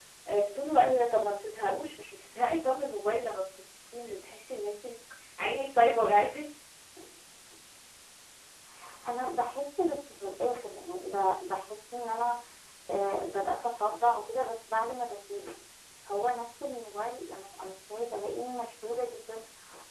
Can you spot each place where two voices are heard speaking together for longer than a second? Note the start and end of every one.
none

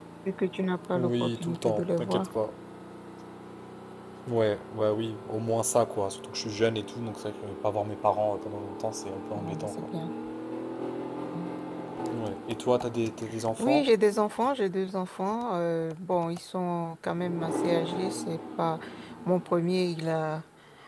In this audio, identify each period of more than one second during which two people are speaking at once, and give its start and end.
0.9-2.3

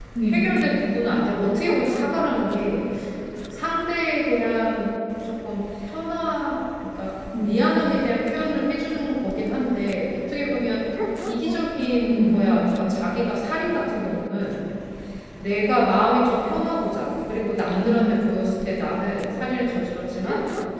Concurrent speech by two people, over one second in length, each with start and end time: none

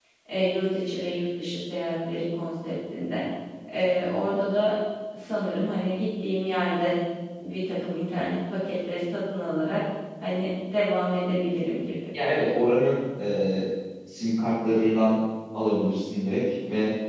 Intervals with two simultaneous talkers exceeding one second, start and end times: none

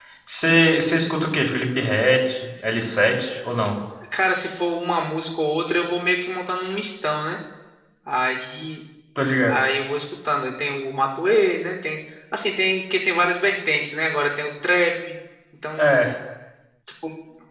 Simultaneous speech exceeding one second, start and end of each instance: none

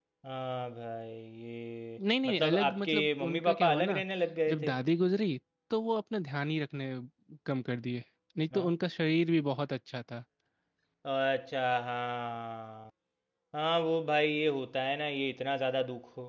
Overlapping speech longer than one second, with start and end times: 2.2-4.0

